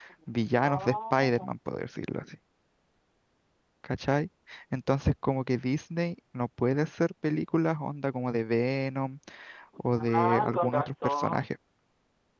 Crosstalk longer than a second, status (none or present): present